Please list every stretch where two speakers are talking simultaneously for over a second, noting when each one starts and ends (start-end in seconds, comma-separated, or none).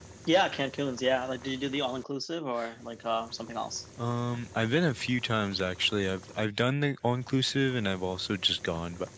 none